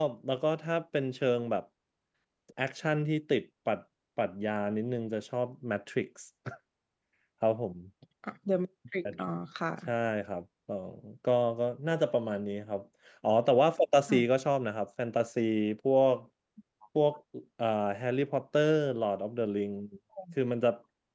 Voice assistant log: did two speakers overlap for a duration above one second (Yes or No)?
No